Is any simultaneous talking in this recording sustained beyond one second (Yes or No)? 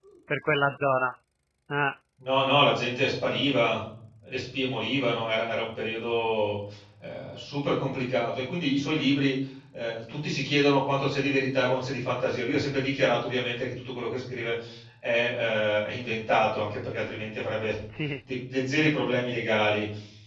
No